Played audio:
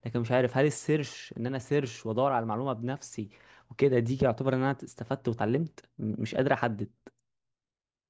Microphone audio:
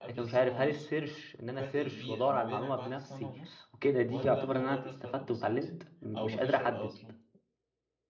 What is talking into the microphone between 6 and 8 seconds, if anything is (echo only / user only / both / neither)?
both